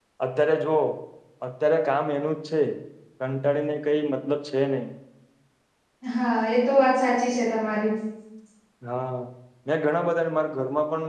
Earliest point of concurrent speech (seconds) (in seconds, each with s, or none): none